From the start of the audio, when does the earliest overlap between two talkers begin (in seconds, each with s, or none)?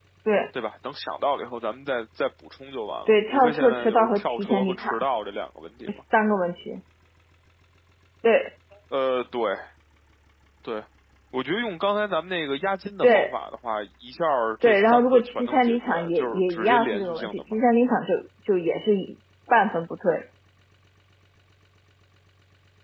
3.1 s